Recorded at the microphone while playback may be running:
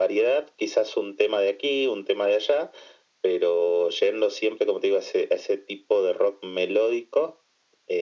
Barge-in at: none

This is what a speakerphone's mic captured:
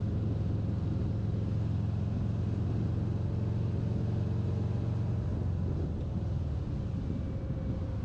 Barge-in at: none

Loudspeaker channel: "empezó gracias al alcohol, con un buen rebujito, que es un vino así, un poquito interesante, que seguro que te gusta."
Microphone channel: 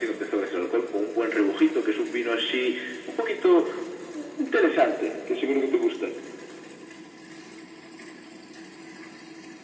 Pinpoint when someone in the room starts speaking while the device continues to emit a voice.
none

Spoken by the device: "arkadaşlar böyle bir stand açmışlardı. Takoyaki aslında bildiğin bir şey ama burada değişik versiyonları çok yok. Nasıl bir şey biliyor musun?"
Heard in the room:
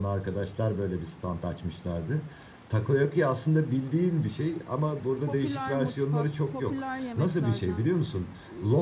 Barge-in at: 5.2 s

